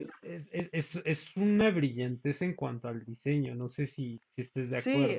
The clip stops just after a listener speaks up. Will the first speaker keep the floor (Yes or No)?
No